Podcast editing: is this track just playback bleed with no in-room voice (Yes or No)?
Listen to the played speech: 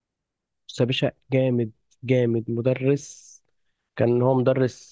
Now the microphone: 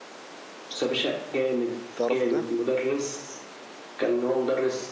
No